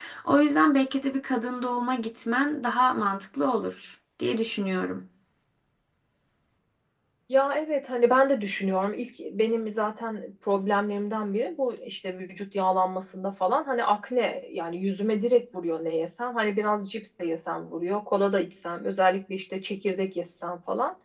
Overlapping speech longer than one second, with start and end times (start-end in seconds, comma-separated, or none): none